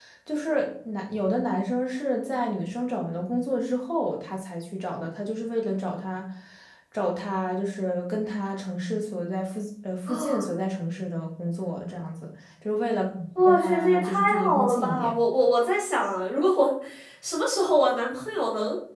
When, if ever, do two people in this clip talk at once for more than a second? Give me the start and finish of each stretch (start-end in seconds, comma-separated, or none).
13.4-15.1